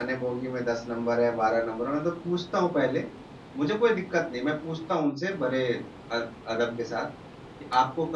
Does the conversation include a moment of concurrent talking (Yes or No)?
No